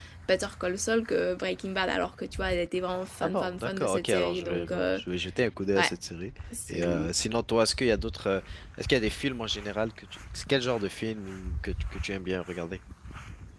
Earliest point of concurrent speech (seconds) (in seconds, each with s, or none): 3.2 s